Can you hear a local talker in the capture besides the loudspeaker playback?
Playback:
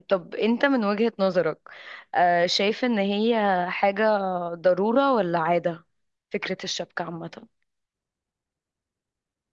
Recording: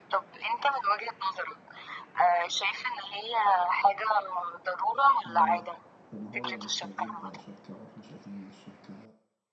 Yes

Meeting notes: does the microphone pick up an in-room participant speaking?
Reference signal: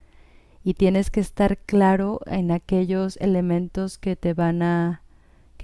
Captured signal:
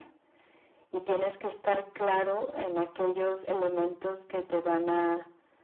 No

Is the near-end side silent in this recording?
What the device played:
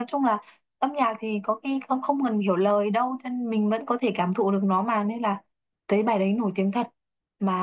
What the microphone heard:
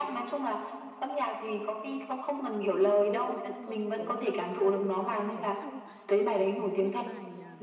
No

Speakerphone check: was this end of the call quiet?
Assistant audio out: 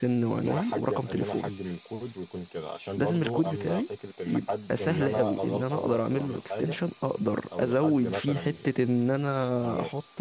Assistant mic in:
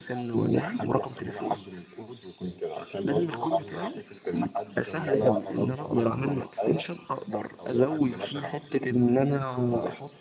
Yes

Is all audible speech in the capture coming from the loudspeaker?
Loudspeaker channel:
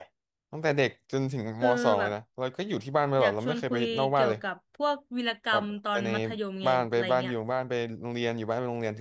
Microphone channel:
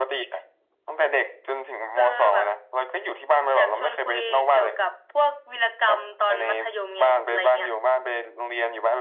Yes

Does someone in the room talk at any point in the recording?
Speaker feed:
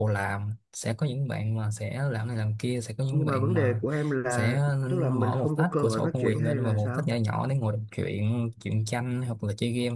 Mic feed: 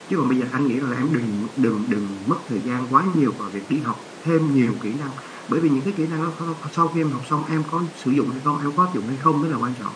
Yes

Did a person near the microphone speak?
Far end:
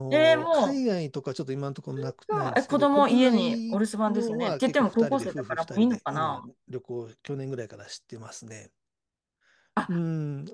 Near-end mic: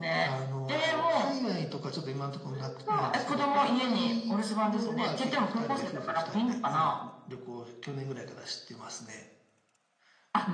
No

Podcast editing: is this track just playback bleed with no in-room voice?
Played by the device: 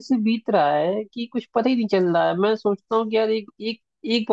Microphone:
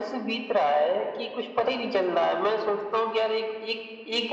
Yes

